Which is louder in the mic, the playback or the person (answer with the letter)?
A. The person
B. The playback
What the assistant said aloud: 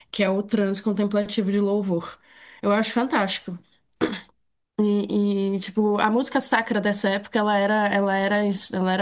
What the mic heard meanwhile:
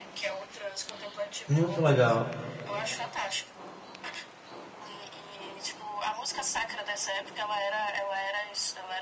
A